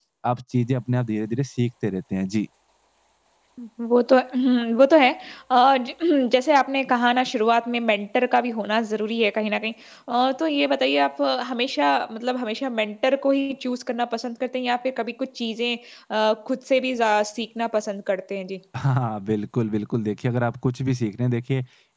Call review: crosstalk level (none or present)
none